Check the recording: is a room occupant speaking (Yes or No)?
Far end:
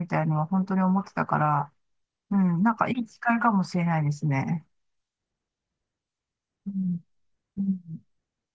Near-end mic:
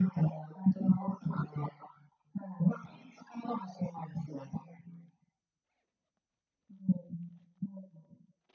No